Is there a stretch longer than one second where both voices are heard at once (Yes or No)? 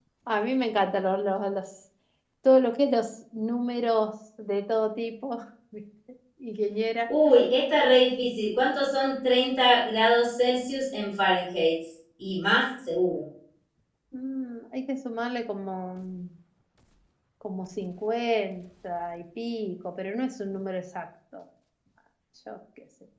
No